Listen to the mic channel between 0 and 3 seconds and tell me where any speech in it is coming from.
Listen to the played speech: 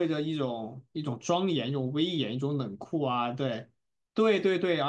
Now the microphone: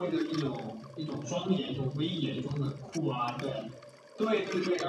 echo only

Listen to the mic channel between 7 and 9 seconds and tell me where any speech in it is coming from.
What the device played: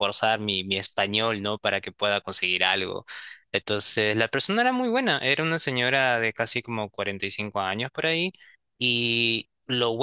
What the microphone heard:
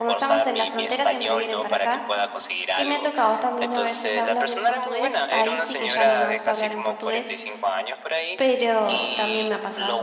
both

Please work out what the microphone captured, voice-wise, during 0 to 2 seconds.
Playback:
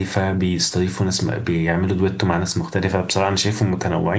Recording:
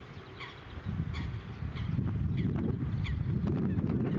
neither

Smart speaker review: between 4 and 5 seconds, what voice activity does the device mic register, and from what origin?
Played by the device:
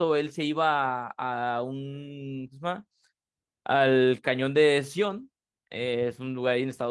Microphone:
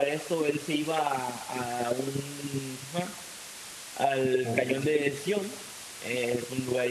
both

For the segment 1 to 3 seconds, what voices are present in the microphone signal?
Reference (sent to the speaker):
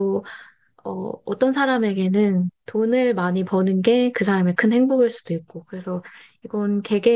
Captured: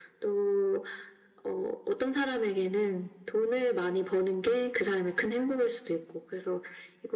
echo only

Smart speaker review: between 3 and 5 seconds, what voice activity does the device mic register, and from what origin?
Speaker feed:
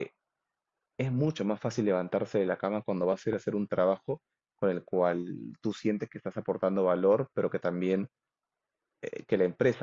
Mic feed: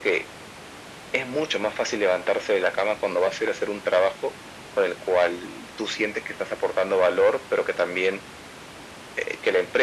echo only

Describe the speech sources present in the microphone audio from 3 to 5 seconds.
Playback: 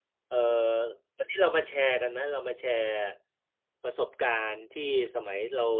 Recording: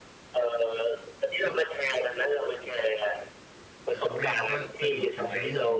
both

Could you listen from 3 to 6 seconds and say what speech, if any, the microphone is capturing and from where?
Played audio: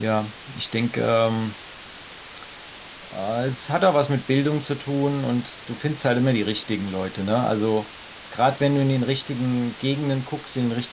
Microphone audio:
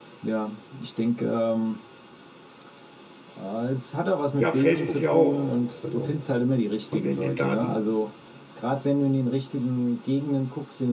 both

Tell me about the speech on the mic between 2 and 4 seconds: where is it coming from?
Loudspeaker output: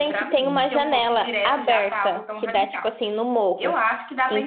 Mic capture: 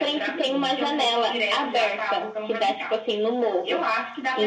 echo only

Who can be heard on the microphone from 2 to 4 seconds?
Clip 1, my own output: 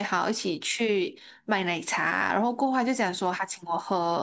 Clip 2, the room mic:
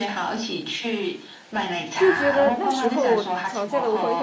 both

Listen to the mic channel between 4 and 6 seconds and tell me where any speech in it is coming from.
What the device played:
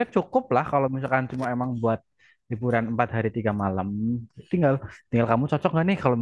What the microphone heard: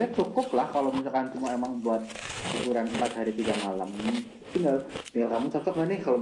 echo only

